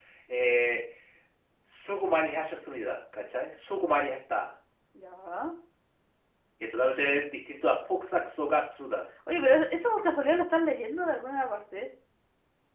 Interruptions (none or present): none